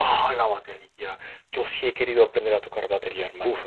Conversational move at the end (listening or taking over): taking over